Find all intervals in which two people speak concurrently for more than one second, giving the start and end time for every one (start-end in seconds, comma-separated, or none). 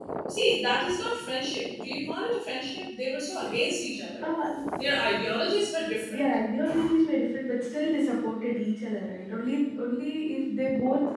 none